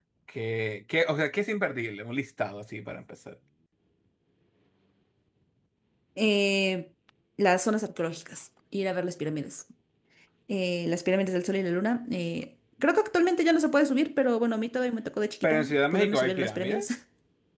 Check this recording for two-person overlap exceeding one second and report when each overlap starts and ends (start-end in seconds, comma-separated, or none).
15.4-16.9